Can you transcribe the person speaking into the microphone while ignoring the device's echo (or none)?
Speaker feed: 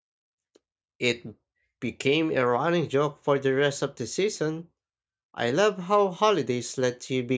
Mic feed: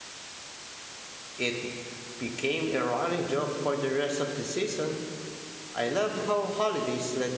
none